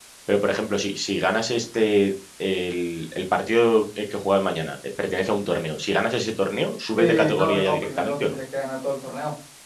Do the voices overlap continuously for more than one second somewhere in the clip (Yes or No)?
Yes